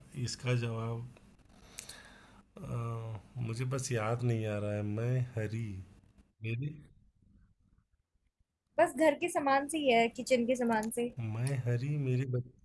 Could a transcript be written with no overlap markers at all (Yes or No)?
Yes